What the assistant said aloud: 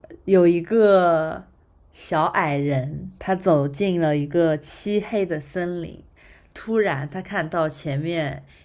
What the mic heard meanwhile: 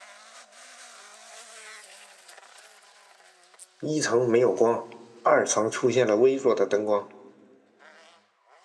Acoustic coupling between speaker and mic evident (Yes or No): No